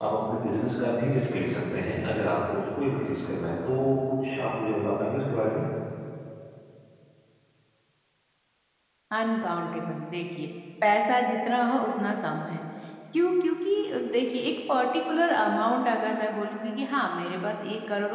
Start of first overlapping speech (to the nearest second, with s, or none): none